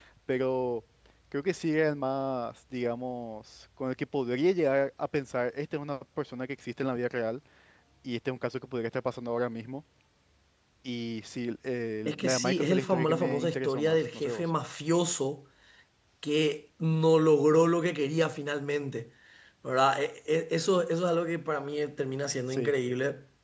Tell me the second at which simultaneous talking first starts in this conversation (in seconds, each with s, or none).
12.1 s